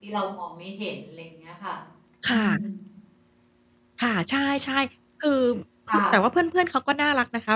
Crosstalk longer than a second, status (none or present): none